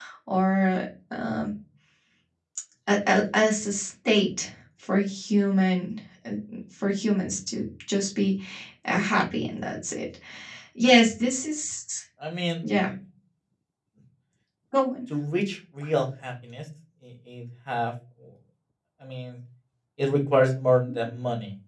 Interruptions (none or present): none